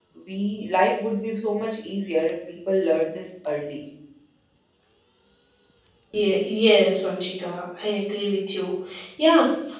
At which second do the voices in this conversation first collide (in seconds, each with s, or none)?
none